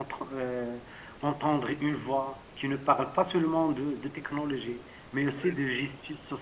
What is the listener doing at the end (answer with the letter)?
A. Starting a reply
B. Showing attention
B